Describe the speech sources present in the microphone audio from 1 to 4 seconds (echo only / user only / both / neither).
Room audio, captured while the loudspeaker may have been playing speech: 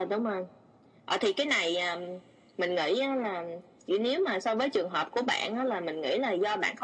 echo only